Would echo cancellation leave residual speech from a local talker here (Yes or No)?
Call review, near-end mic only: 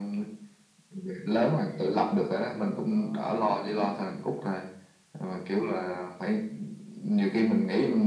Yes